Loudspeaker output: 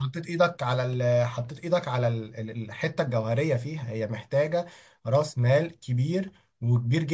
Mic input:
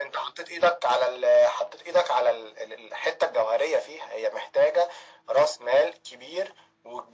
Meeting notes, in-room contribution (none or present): none